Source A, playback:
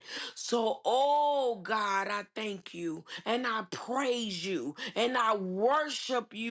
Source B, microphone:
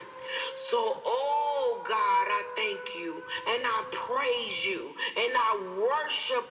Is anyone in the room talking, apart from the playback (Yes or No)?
No